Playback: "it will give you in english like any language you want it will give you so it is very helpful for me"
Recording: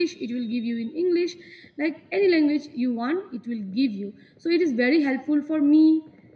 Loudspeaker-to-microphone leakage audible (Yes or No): Yes